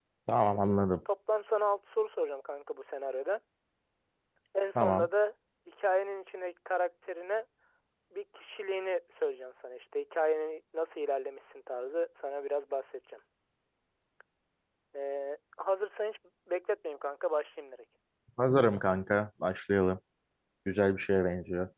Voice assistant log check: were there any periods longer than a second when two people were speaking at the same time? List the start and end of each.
none

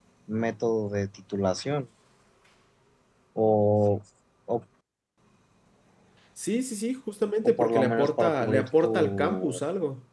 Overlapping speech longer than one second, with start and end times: 7.4-9.6

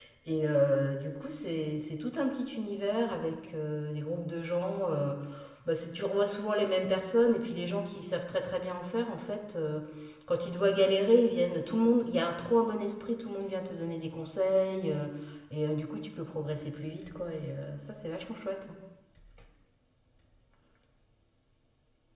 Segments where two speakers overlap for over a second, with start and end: none

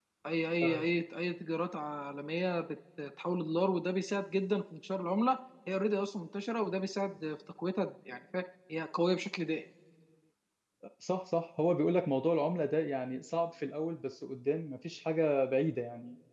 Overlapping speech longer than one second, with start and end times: none

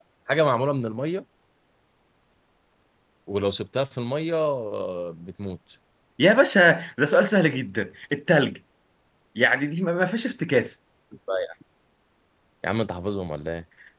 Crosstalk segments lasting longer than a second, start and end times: none

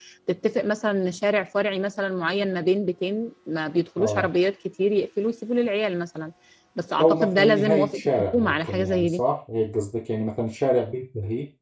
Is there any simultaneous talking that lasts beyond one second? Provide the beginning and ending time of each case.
7.0-9.2

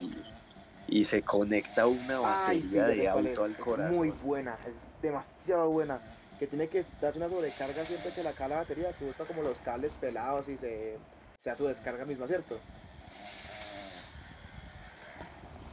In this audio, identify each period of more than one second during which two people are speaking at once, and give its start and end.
2.2-4.1

